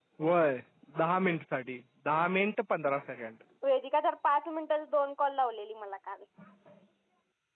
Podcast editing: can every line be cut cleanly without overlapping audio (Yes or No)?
Yes